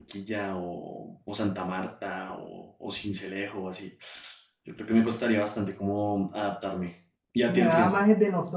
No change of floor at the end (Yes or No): No